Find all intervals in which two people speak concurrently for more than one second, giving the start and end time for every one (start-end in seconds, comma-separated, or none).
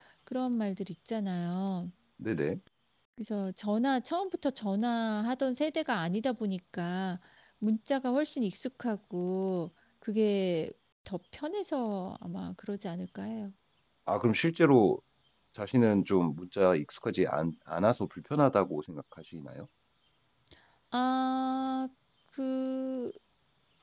none